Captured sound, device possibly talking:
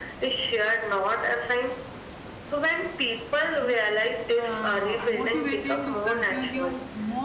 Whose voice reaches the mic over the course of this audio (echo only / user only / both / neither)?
both